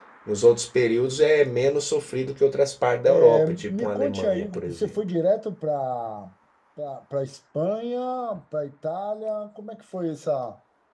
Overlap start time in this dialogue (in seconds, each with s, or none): 3.0 s